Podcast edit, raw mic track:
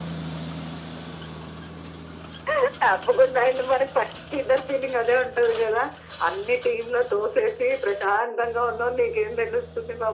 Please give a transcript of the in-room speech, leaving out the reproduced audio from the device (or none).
none